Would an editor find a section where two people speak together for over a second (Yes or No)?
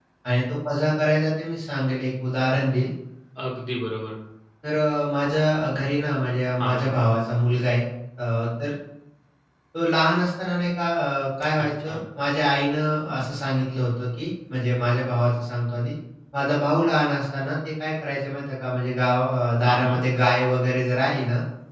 No